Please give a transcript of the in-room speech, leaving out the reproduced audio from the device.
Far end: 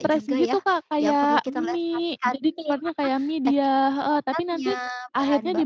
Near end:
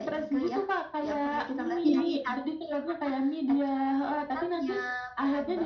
Iya iya iya.

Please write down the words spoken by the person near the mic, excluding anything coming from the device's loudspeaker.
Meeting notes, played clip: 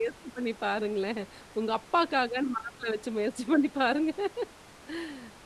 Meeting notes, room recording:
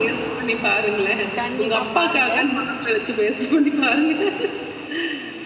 கண்டிப்பா. பாருங்க.

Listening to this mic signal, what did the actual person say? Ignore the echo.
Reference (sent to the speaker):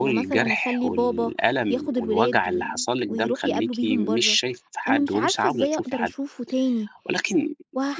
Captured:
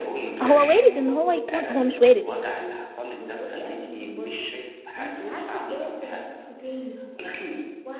هو وارد إن هو يكون هو مش وارد،

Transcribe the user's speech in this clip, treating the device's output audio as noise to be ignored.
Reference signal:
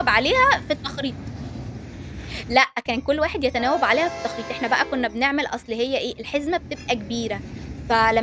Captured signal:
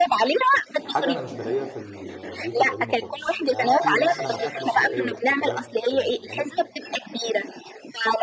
حاجة أنا مش بالاقيها في ال البيوت القديمة خالص، هل في مثلًا أكلة صحّية أنتِ فاكراها كانت بتتعمل،

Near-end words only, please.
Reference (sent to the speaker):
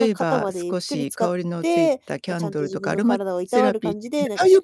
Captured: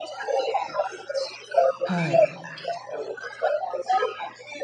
はい。

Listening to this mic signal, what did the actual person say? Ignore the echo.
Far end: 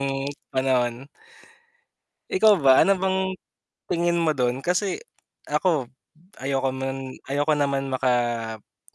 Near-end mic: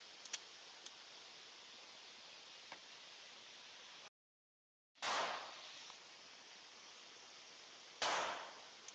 none

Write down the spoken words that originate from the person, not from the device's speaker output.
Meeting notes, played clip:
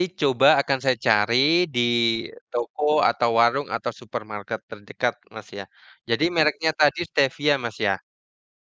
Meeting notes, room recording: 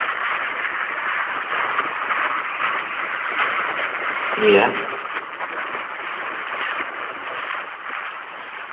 Iya.

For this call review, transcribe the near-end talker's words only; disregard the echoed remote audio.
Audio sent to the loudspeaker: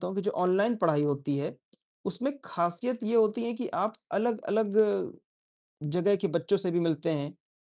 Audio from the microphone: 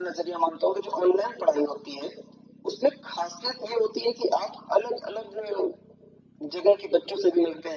none

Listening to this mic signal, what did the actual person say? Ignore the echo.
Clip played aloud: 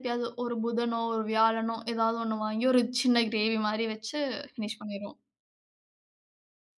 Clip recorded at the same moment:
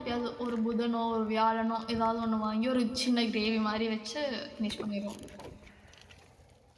none

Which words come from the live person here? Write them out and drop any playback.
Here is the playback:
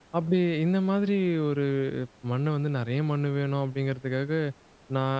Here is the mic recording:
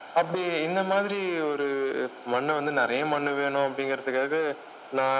none

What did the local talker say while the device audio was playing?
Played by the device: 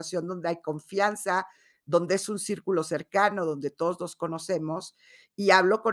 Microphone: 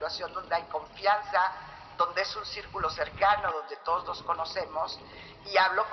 none

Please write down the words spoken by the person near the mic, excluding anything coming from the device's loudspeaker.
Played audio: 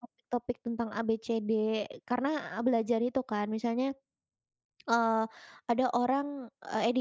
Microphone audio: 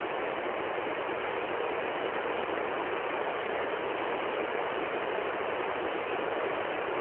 none

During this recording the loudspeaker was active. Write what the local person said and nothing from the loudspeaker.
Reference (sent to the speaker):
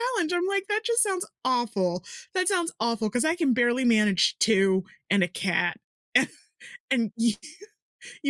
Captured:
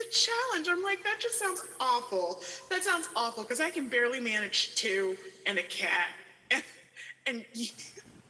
none

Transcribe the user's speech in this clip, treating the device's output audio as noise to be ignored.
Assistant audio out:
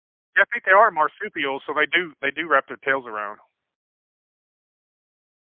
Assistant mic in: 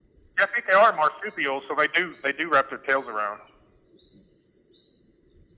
none

